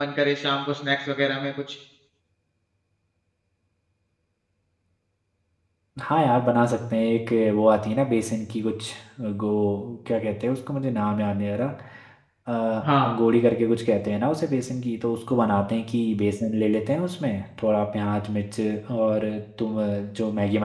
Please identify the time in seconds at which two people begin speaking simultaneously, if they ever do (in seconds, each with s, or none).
none